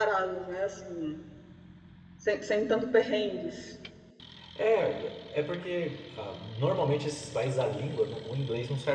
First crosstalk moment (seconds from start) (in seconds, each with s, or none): none